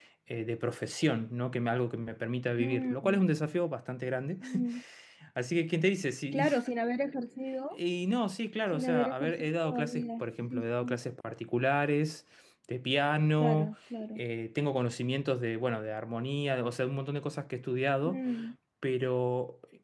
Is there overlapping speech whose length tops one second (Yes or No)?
Yes